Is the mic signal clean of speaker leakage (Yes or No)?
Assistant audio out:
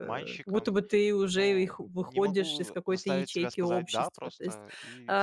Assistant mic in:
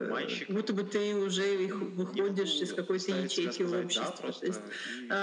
No